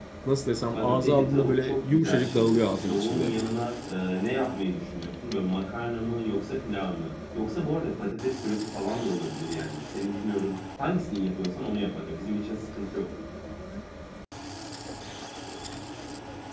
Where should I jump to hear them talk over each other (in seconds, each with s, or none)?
0.7 s